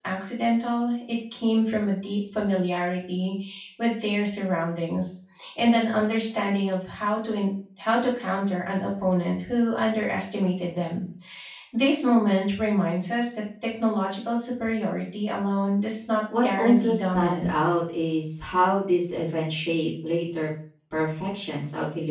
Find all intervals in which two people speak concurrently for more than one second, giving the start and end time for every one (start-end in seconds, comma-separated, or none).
16.4-17.7